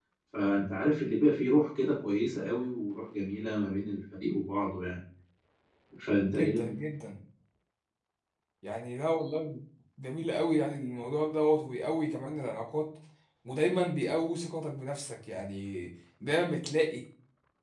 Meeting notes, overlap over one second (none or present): none